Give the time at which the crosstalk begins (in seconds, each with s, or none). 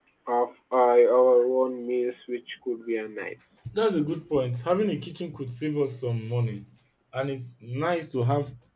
none